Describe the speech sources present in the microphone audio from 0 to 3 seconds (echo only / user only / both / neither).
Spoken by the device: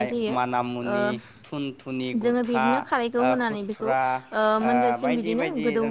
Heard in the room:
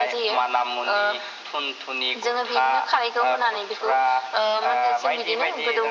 echo only